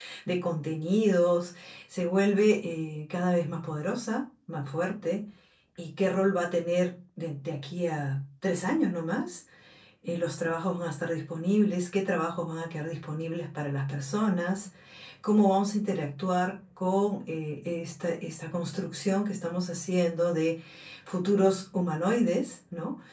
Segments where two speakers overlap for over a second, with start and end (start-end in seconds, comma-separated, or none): none